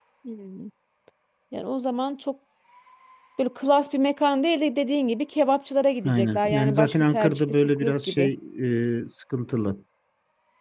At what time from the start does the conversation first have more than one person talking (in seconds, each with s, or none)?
6.0 s